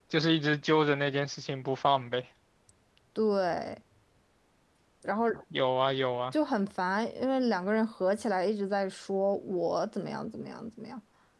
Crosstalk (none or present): none